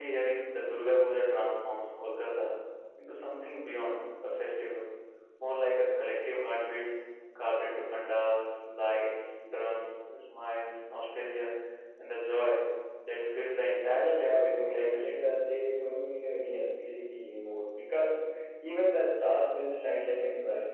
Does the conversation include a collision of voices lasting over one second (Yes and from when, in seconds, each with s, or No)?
Yes, from 13.9 s